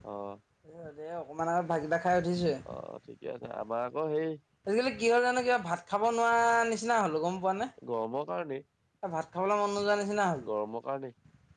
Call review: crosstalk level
none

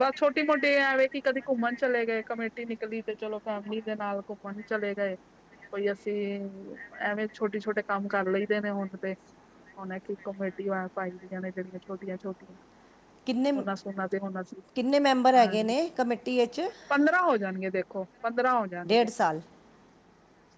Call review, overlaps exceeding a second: none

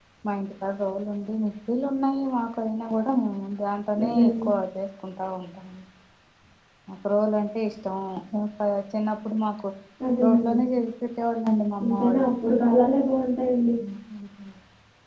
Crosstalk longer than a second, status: none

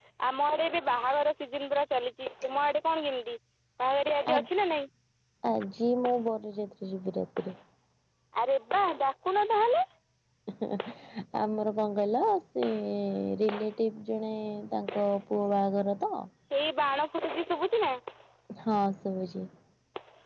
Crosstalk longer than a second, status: none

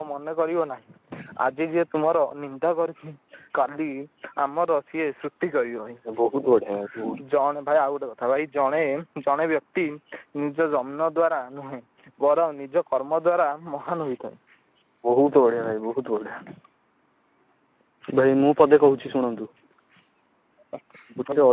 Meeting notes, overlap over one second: none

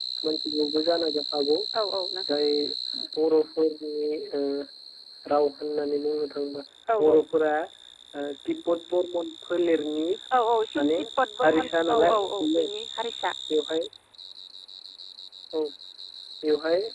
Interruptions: present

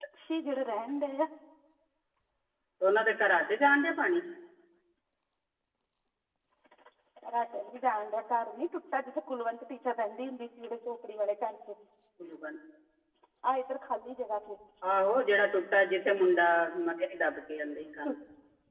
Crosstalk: none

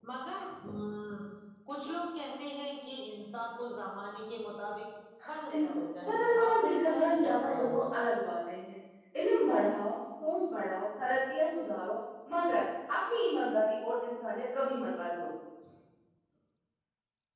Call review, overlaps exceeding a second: present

